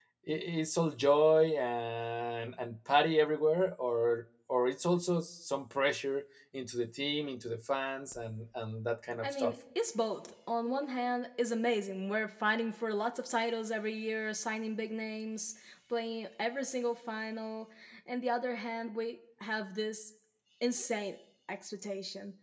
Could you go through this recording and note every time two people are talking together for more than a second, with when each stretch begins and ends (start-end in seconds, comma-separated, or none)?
none